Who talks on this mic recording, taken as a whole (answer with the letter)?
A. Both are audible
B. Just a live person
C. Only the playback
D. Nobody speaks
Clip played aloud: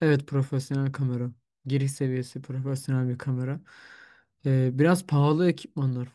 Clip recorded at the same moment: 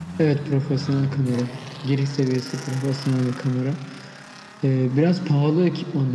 C